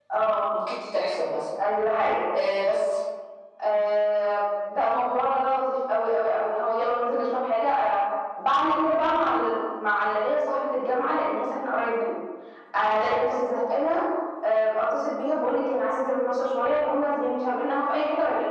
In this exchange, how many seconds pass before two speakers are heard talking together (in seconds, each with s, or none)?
none